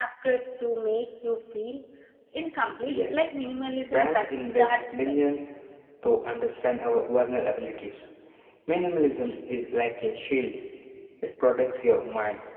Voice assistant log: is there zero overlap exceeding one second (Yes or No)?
No